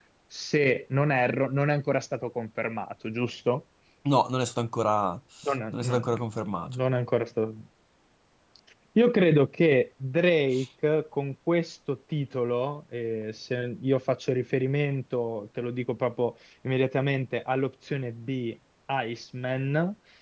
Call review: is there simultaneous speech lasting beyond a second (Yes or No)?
No